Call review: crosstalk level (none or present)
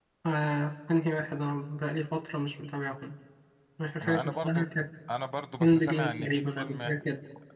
present